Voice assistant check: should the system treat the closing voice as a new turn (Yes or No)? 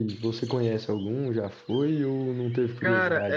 Yes